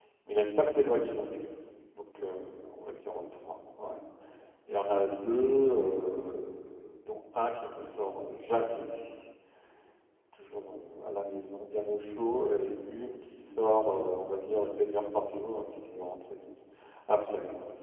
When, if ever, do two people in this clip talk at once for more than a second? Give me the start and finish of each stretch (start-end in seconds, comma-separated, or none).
none